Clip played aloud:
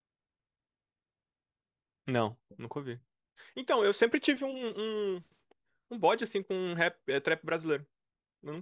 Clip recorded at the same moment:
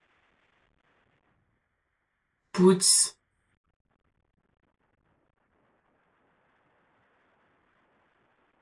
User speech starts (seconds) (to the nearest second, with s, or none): 3 s